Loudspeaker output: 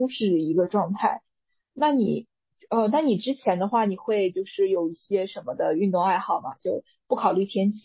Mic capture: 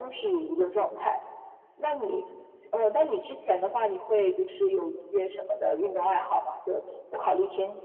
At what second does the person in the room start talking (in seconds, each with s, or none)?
none